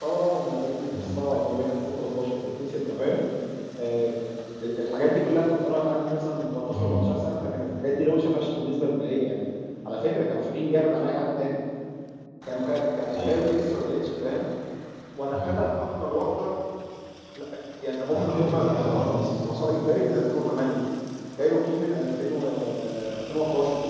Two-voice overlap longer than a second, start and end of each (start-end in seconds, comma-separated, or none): 18.1-19.3